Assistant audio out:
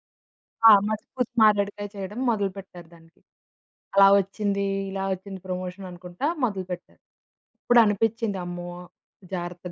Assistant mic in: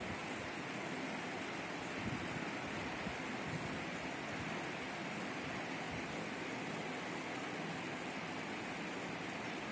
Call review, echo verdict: none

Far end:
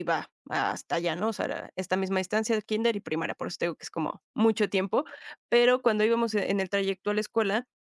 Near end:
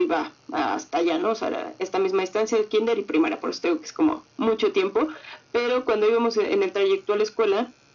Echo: present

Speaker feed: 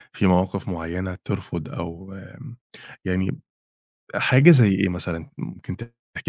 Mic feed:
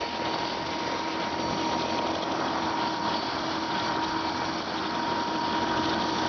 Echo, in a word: none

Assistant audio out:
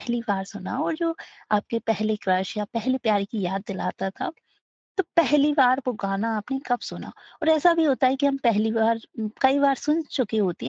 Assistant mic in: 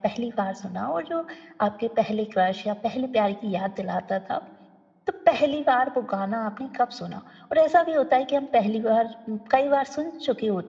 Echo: present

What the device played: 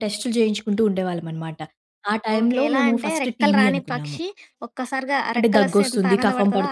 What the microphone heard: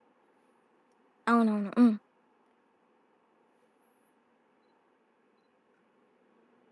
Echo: none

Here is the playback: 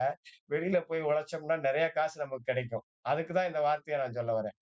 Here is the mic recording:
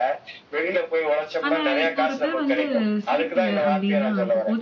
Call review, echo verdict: present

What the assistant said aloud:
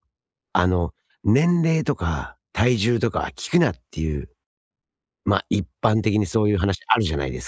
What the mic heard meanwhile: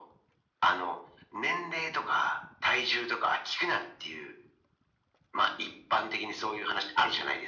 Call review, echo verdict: present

